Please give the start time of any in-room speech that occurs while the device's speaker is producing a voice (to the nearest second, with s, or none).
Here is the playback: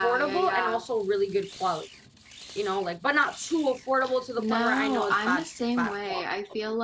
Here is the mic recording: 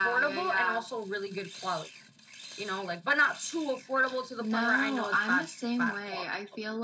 none